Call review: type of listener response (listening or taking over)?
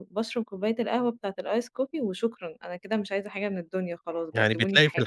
taking over